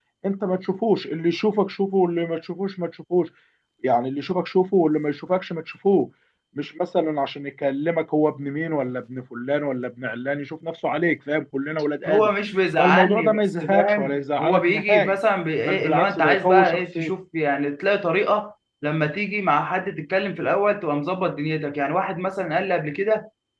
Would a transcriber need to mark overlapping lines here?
Yes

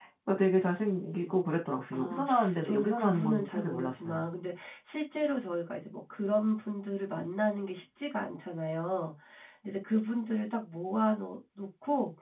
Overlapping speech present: Yes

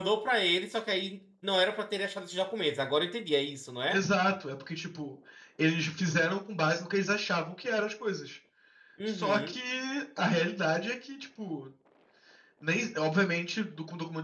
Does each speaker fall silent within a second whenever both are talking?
Yes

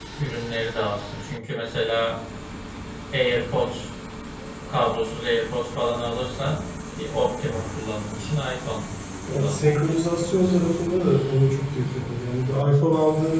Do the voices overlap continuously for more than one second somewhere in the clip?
Yes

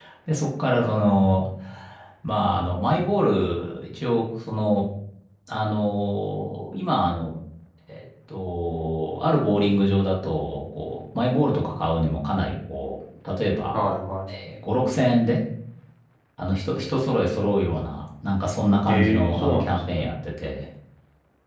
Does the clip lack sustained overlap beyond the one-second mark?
No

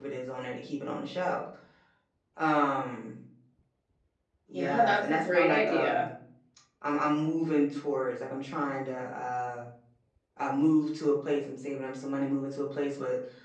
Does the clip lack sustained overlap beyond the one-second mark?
No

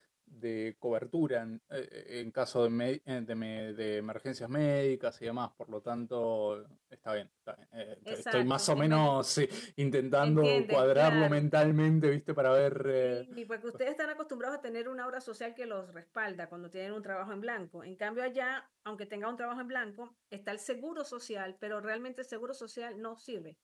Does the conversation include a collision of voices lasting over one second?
Yes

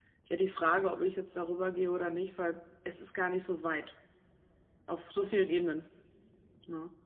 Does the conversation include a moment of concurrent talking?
No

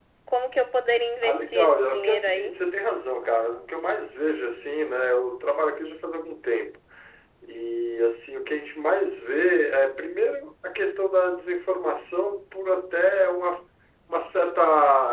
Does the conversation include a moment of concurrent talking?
Yes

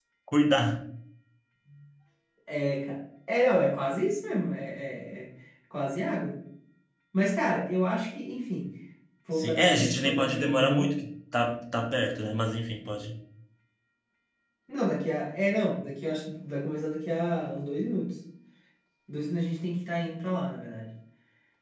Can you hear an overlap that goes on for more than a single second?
Yes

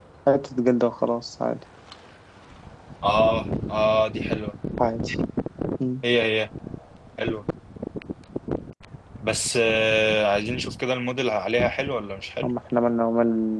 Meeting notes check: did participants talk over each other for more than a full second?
No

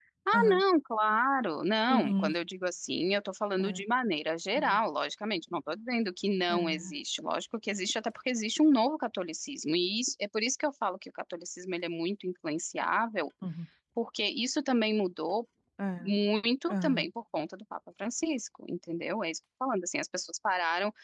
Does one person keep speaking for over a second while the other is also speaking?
No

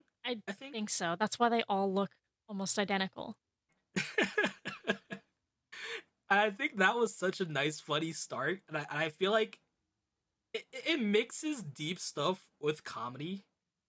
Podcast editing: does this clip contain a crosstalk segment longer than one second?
No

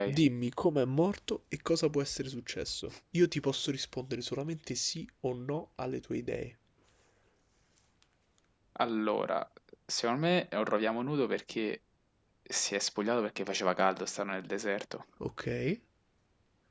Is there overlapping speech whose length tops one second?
No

